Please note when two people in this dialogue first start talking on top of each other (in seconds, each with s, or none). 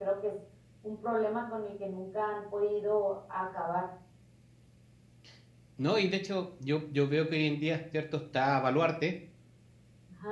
none